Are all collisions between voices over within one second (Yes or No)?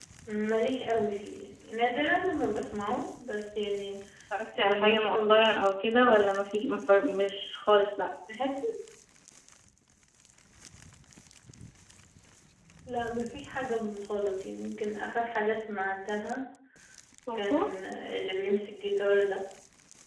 No